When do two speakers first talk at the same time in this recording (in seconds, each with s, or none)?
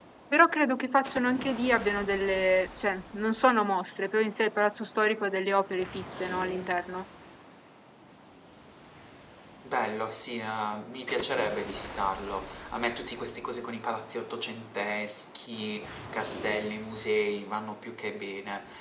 none